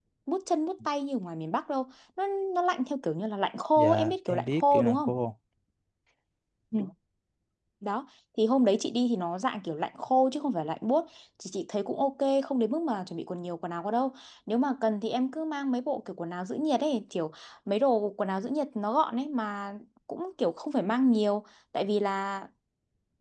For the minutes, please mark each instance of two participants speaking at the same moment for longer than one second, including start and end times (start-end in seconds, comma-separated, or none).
3.8-5.1